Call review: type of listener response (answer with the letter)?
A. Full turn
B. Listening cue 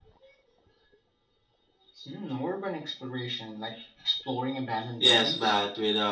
A